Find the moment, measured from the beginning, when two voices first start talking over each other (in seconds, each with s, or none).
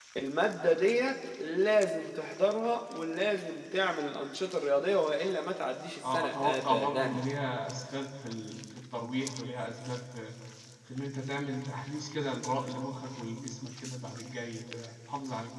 6.0 s